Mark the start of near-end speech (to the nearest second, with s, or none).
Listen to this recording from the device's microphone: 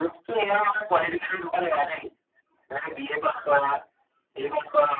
none